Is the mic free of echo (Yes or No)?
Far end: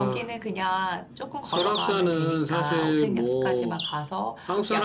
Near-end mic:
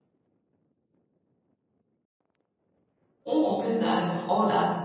Yes